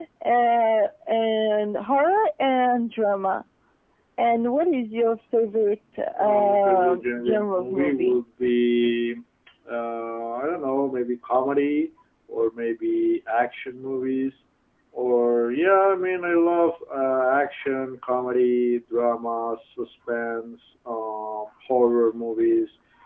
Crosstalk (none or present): present